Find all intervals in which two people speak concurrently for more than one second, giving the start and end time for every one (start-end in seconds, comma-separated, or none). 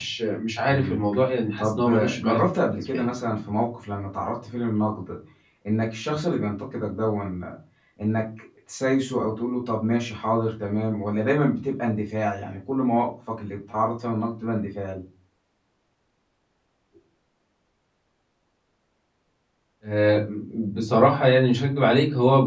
1.6-3.0